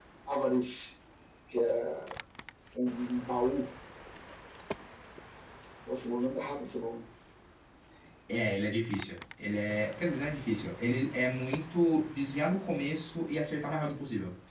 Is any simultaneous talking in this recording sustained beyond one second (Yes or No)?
No